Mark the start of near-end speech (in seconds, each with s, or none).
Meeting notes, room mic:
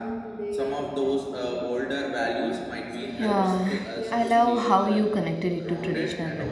3.2 s